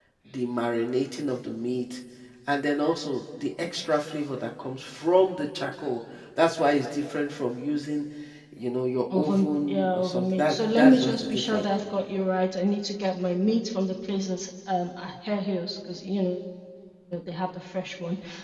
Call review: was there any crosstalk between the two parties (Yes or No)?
Yes